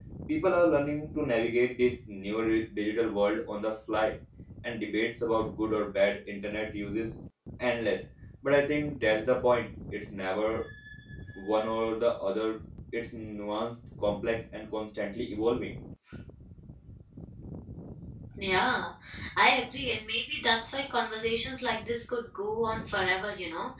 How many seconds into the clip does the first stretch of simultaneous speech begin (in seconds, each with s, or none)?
none